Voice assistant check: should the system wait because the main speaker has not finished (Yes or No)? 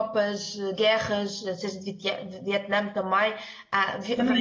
No